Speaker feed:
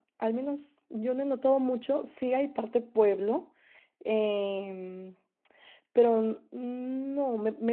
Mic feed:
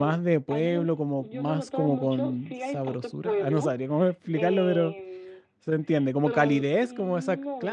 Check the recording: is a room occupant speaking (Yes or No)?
Yes